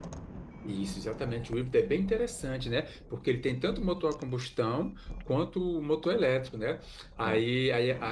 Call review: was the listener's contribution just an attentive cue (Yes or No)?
Yes